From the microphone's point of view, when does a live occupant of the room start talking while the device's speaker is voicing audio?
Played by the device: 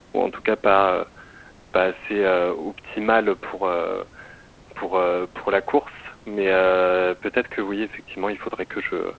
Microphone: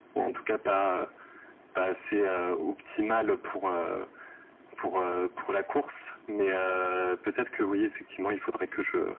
none

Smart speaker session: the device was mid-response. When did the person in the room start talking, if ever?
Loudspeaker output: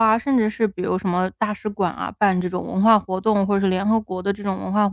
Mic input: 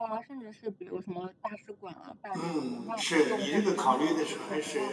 2 s

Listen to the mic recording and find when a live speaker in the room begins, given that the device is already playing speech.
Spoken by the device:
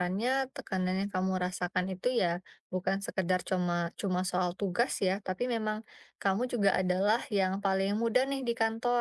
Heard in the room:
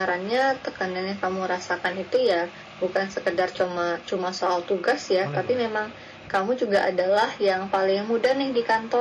5 s

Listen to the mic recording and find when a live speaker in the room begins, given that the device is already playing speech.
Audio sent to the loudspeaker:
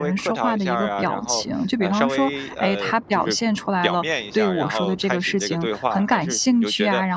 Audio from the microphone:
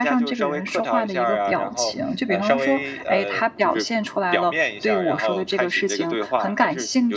none

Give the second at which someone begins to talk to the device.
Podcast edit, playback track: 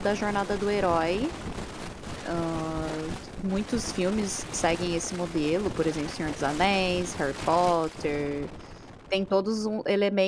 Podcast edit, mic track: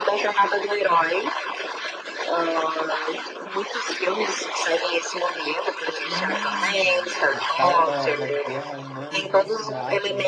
6 s

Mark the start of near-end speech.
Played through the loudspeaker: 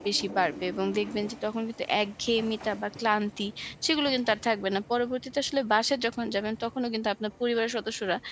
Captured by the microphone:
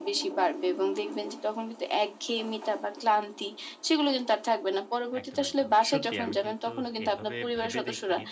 5 s

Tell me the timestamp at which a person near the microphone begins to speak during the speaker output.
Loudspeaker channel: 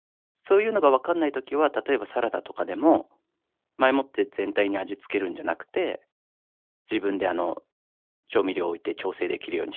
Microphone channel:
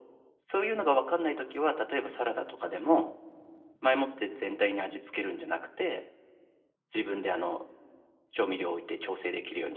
none

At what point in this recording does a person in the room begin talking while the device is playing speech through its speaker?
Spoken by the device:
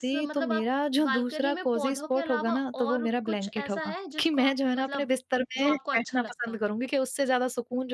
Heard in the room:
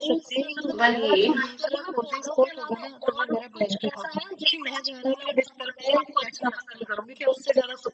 1 s

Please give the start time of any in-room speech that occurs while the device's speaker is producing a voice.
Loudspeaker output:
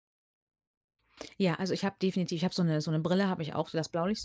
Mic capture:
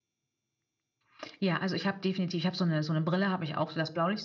none

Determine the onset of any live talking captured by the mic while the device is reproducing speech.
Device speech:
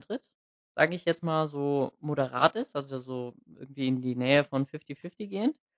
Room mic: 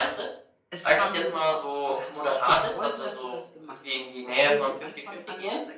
1 s

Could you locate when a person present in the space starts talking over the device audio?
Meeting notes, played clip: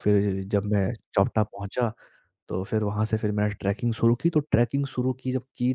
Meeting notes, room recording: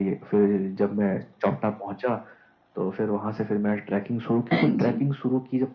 5 s

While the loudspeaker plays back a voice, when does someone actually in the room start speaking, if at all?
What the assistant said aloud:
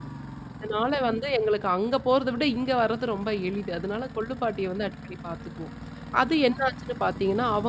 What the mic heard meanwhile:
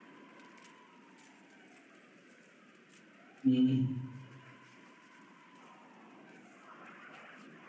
3 s

